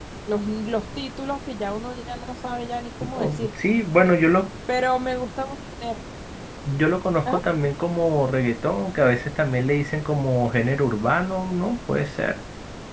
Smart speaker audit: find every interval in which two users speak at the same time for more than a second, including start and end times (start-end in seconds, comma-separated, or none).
none